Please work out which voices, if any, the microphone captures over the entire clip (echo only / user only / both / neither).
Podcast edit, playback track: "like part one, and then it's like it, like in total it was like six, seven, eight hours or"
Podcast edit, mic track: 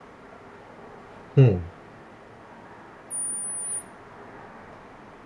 user only